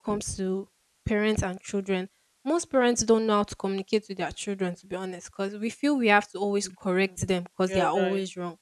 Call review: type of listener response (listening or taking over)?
listening